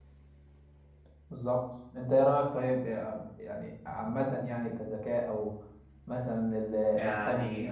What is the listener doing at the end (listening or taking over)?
taking over